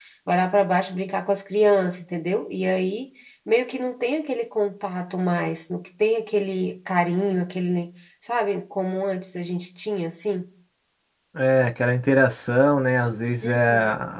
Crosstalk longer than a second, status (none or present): none